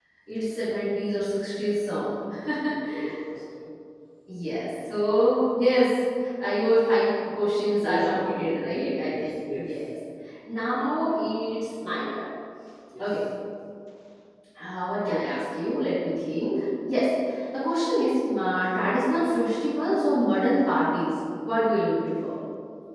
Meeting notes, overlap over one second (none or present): present